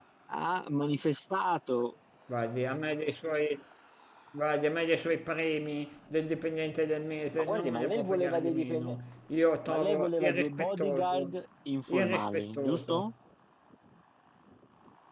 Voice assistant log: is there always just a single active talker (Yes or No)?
No